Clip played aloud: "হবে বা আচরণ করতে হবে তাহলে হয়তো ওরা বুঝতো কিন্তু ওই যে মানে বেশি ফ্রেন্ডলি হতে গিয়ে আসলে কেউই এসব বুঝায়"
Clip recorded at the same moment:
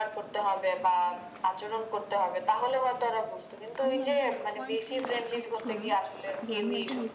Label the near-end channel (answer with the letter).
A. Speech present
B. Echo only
A